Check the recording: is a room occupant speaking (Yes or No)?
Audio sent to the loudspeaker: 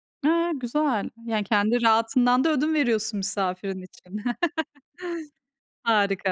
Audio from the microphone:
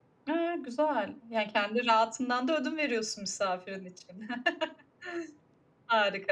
No